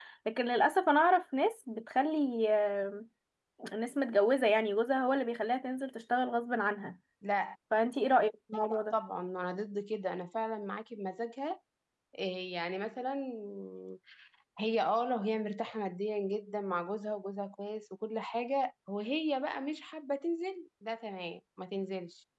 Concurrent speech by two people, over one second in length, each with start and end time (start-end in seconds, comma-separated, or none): none